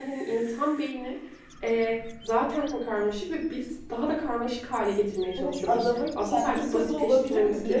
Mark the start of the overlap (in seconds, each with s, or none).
5.4 s